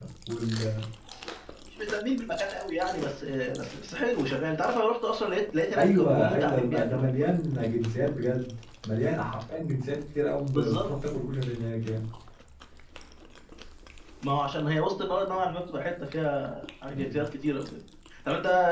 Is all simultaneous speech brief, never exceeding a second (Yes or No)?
No